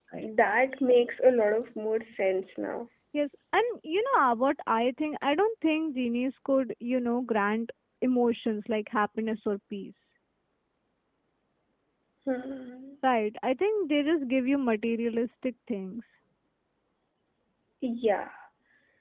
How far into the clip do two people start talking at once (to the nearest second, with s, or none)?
none